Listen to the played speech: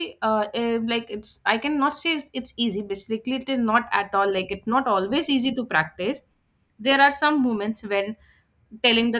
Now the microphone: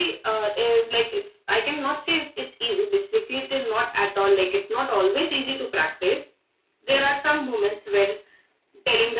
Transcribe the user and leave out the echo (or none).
none